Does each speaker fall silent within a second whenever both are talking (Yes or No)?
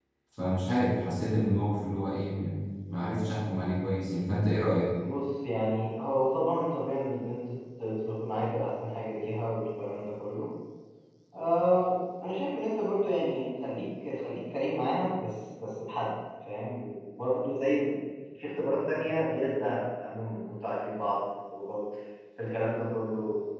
Yes